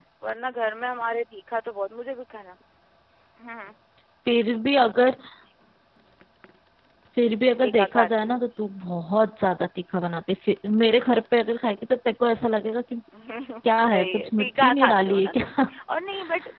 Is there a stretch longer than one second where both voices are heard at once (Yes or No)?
Yes